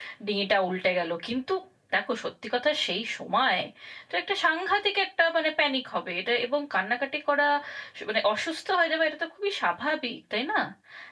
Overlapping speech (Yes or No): No